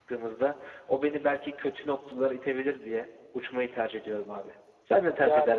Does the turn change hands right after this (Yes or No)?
Yes